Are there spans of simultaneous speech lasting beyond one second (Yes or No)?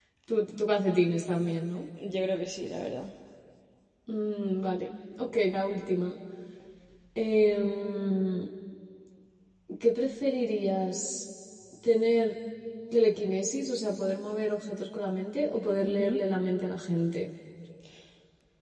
No